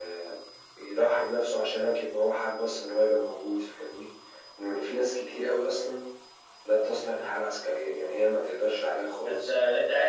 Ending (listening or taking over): taking over